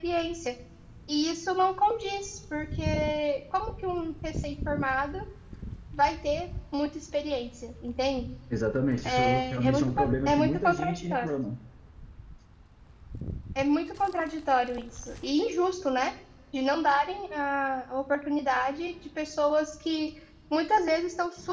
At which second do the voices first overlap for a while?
9.0 s

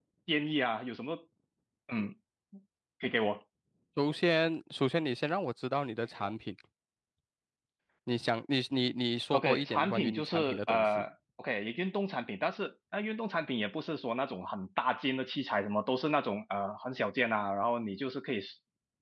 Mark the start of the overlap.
9.3 s

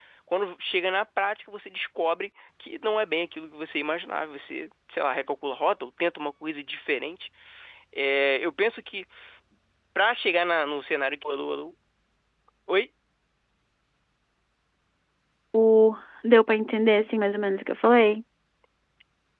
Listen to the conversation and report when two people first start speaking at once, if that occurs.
none

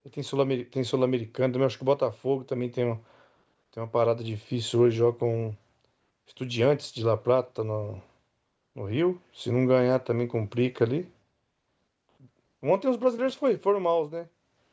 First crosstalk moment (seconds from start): none

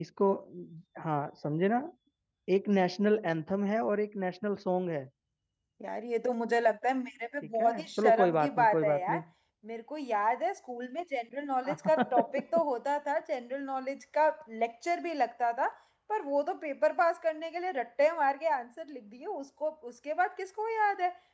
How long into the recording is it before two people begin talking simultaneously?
7.6 s

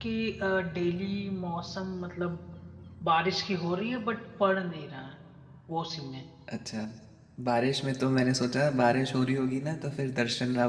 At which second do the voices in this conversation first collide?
none

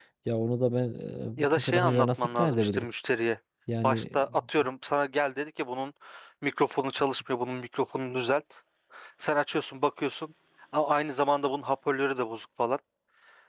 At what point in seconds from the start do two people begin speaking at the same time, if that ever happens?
1.4 s

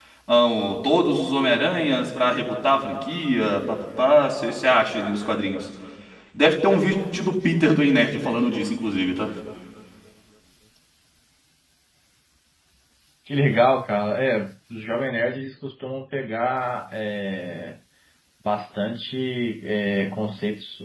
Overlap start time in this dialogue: none

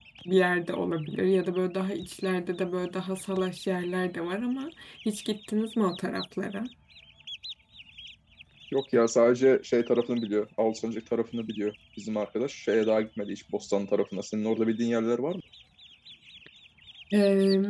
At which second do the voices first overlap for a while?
none

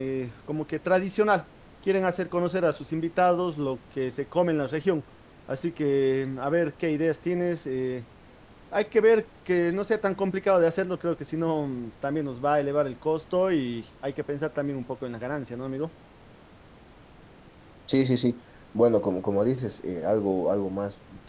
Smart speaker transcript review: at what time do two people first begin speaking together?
none

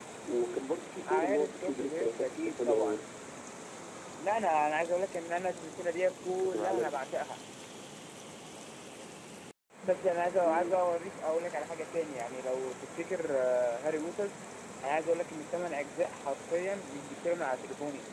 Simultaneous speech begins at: 1.1 s

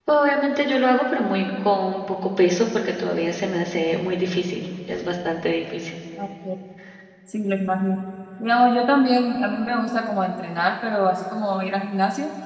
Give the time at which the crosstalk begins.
none

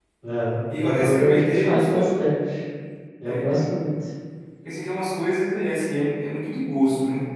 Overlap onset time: 0.8 s

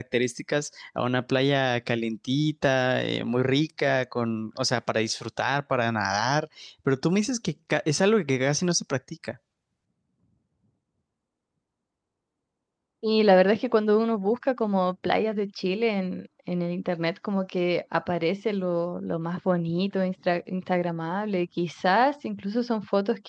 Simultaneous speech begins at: none

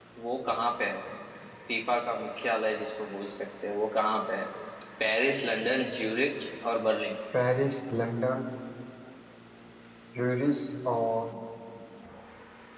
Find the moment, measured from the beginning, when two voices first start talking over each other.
none

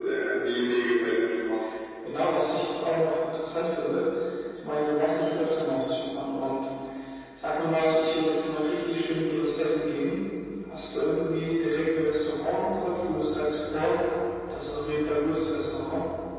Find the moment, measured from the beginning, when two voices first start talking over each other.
none

